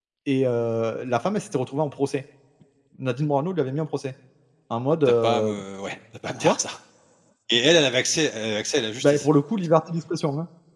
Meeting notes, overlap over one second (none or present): none